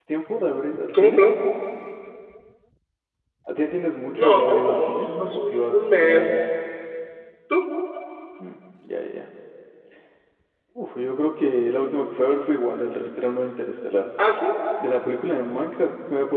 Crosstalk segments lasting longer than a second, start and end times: 4.2-6.4

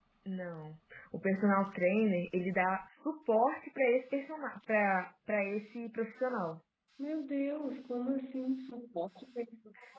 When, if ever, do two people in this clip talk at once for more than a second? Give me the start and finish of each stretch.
none

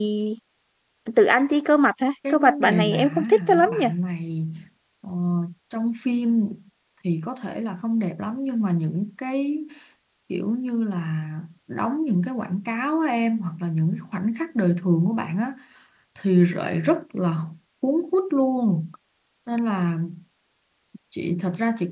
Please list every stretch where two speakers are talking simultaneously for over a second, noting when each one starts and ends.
2.3-3.8

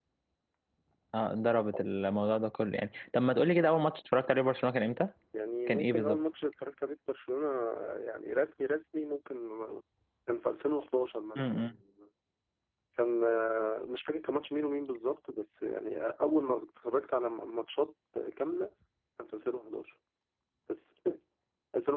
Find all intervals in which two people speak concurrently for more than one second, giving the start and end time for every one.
none

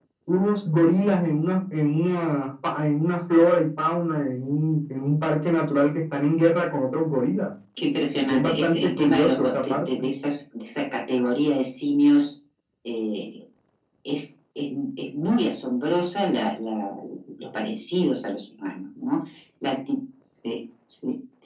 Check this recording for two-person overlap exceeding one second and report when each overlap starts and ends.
8.3-9.9

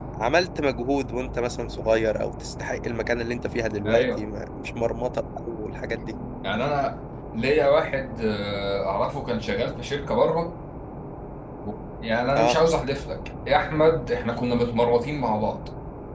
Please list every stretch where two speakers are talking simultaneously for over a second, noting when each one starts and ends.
none

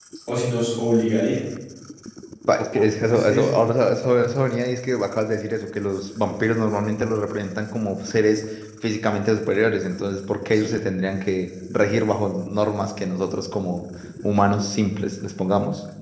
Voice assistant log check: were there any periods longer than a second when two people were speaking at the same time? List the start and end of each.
none

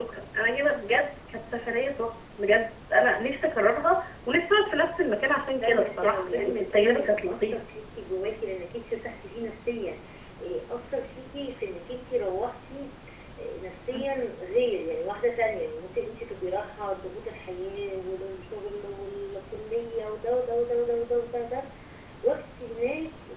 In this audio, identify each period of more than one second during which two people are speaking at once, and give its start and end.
5.6-7.6

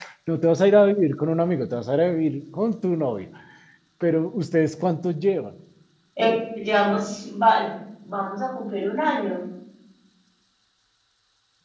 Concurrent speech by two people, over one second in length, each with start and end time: none

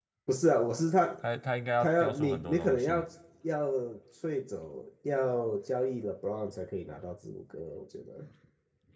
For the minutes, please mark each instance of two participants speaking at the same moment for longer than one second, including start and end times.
1.8-3.0

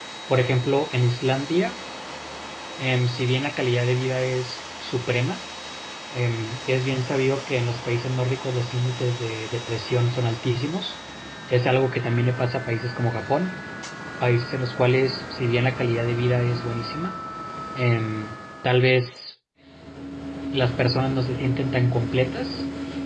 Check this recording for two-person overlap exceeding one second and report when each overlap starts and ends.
none

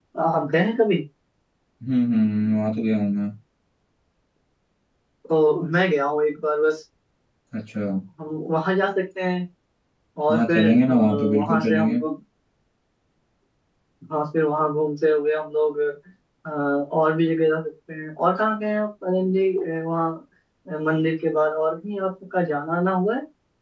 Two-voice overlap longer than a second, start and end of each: 10.3-12.0

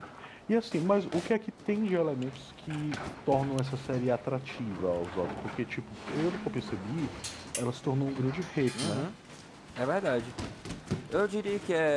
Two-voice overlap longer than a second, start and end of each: none

